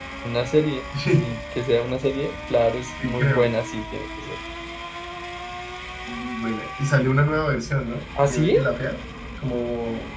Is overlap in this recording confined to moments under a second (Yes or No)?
Yes